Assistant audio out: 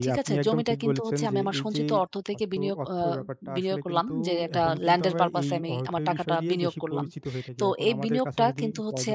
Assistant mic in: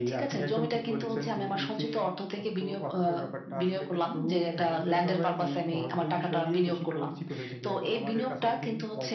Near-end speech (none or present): none